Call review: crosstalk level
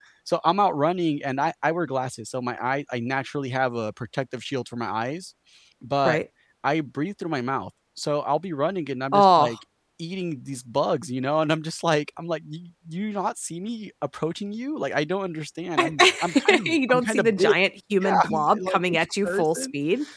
present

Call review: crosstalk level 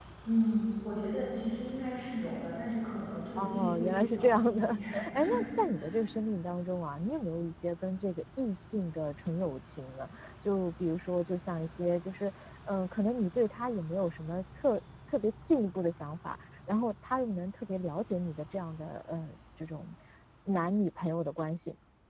present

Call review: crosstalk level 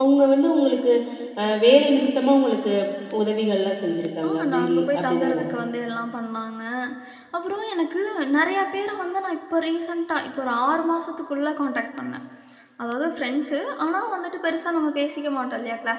present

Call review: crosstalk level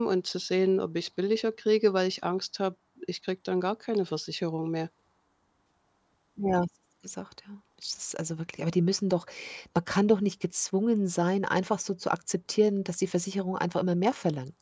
none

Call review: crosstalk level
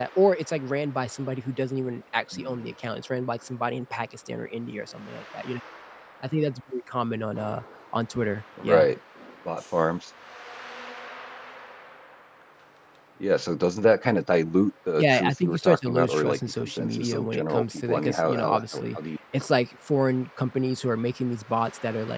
present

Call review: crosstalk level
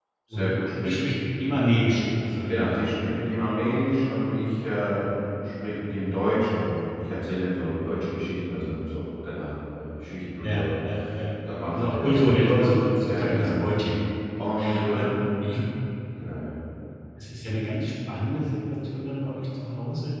present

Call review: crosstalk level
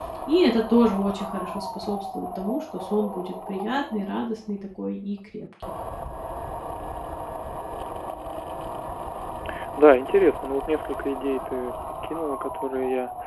none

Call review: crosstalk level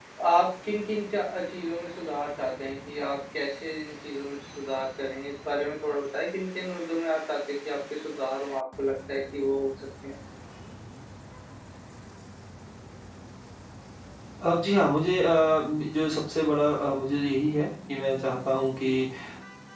none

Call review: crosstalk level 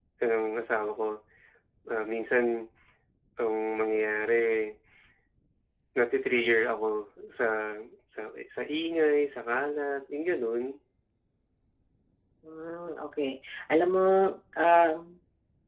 none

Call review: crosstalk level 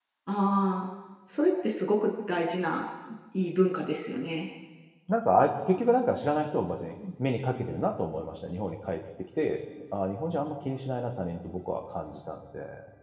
none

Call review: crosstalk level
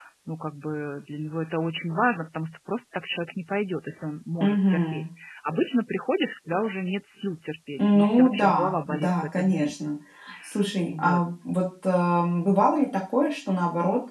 present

